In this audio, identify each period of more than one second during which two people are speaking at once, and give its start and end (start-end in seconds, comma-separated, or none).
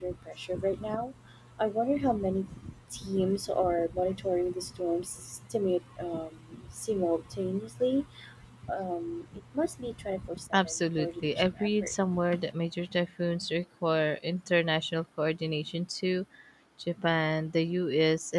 10.5-11.9